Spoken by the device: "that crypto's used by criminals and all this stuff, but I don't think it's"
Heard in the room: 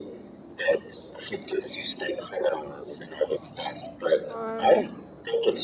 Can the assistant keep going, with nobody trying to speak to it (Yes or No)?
No